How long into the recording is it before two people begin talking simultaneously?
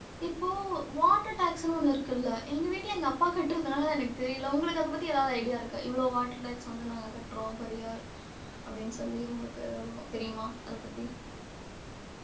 none

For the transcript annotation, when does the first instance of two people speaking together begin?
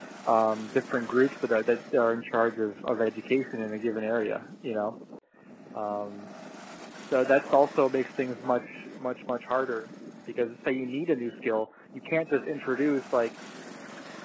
none

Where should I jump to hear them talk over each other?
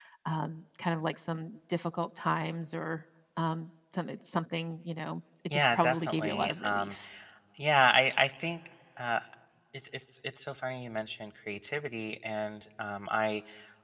5.5 s

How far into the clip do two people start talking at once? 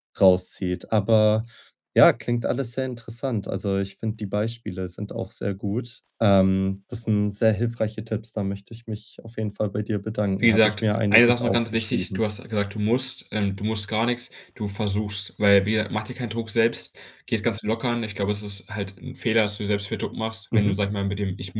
10.4 s

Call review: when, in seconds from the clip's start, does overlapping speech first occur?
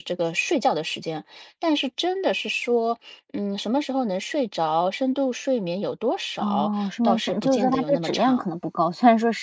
6.4 s

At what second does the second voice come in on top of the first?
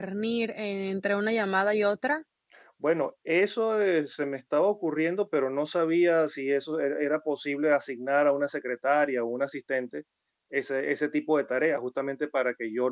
none

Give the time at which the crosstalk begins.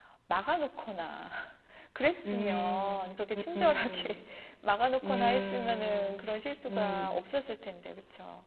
2.2 s

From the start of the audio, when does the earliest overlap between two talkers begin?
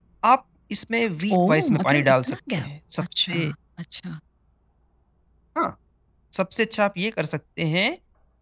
1.3 s

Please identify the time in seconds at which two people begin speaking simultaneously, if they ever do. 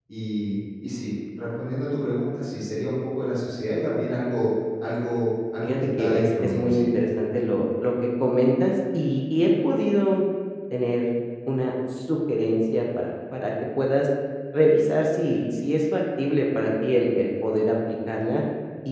5.6 s

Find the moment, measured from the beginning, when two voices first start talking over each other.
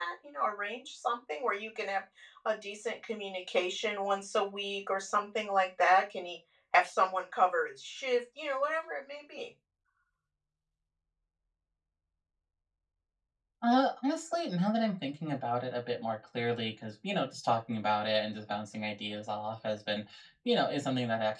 none

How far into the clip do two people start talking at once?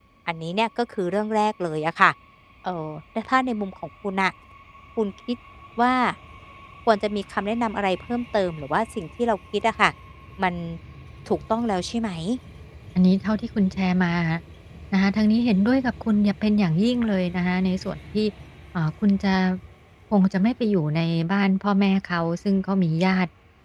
none

